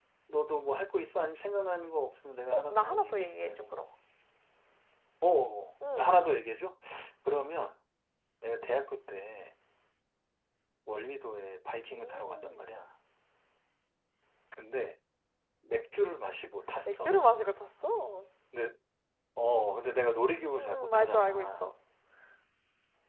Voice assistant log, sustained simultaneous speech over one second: present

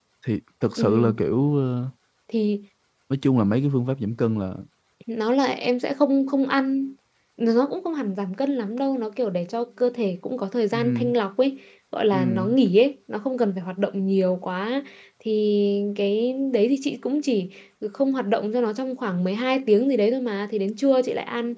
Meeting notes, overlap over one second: none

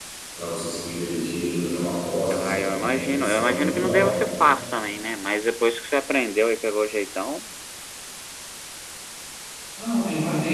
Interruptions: present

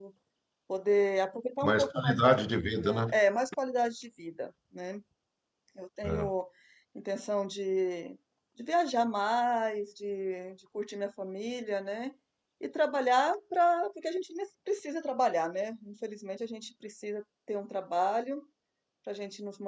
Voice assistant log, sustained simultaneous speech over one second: present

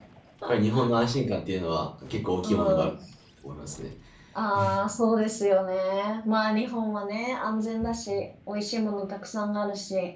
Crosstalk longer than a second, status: none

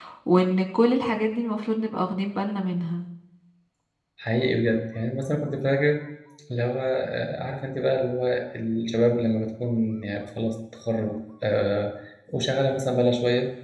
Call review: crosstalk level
none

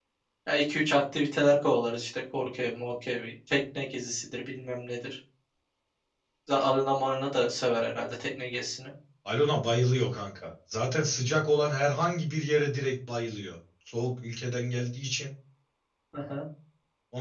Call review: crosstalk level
none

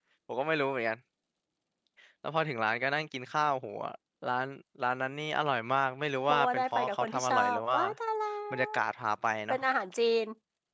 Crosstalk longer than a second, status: present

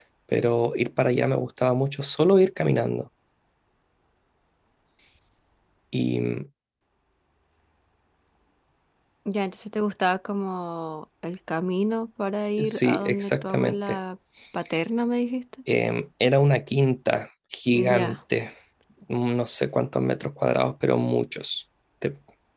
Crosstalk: present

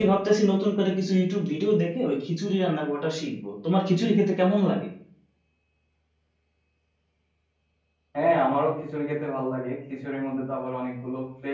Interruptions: none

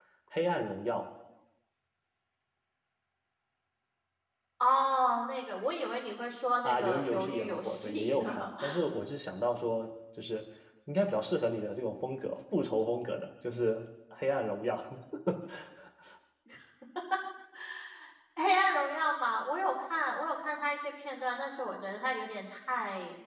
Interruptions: present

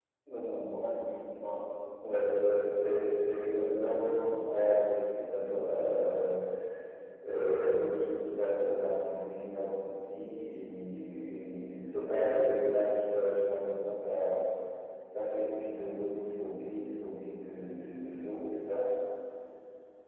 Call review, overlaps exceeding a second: present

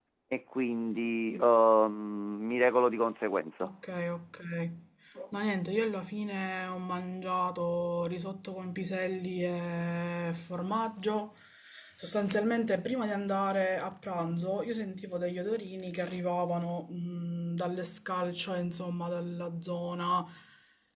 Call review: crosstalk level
none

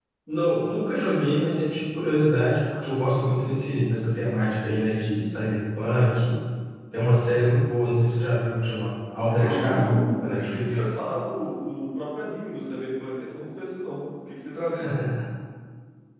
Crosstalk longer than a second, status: present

